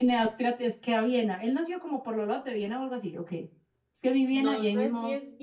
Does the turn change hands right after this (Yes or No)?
Yes